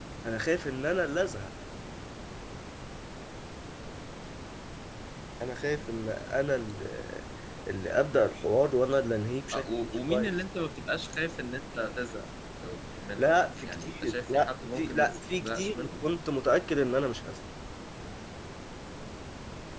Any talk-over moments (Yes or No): Yes